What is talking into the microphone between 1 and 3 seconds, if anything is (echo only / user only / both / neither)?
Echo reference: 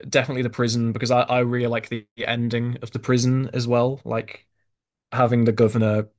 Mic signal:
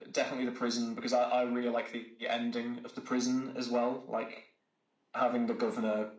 echo only